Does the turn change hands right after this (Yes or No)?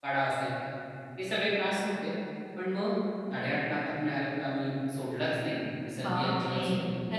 Yes